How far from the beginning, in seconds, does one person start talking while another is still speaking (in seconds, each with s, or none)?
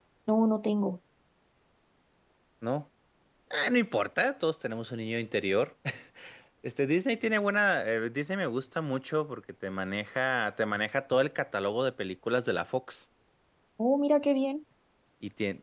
none